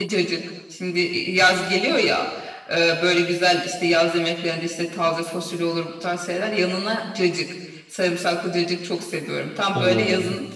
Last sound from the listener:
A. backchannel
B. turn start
A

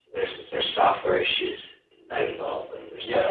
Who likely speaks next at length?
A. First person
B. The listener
B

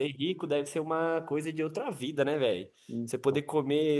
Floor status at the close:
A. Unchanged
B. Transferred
A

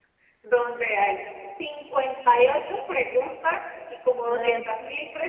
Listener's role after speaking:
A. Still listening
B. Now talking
A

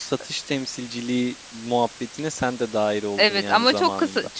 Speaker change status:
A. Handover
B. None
A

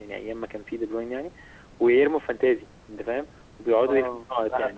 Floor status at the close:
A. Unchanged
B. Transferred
B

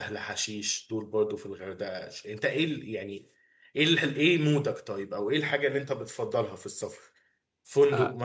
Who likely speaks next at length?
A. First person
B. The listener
A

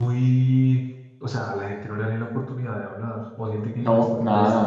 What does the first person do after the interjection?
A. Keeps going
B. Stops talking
B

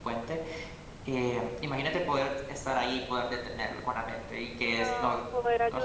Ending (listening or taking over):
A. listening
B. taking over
B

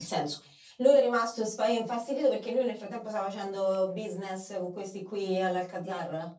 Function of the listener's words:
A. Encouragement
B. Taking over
B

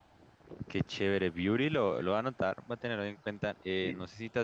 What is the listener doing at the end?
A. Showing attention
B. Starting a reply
A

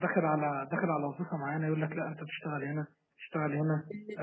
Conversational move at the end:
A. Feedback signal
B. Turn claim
A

